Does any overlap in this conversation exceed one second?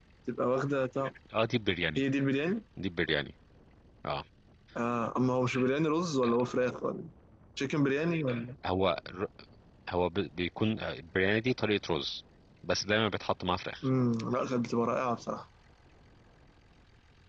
No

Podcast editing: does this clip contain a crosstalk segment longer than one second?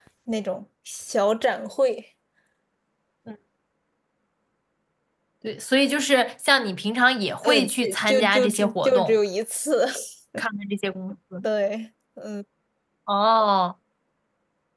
Yes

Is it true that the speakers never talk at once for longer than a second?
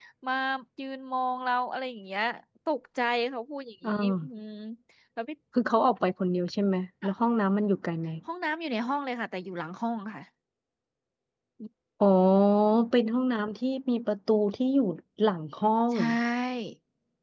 Yes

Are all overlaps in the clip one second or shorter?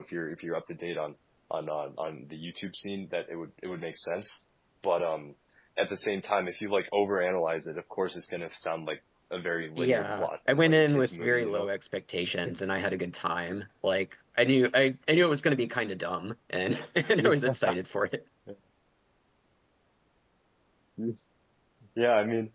No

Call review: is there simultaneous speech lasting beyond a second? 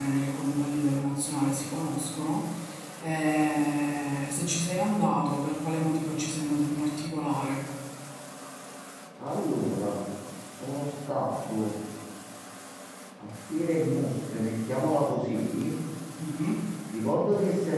No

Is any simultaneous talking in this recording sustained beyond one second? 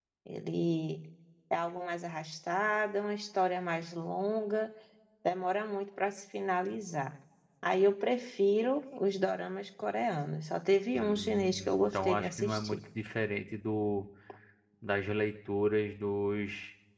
Yes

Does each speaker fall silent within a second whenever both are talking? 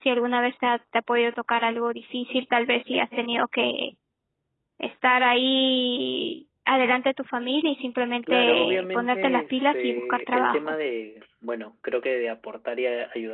No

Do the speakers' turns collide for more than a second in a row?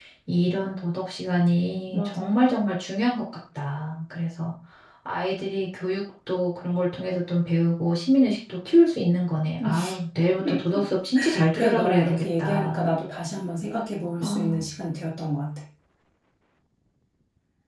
Yes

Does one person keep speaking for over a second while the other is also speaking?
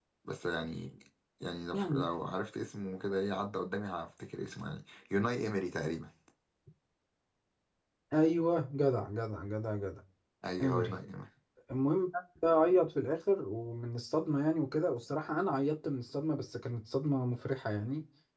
No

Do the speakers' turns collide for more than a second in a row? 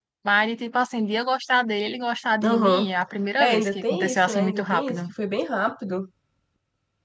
Yes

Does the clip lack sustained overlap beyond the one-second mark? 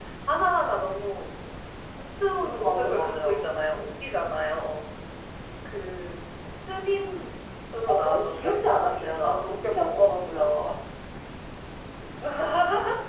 No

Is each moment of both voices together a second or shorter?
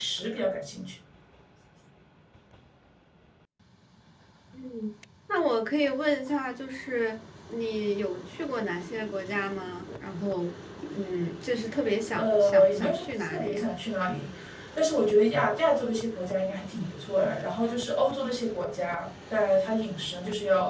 No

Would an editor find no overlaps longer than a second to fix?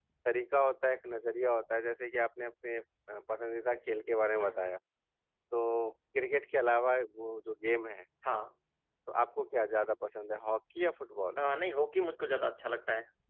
Yes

